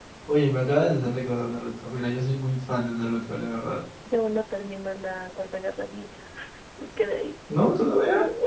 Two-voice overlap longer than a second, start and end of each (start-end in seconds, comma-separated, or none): none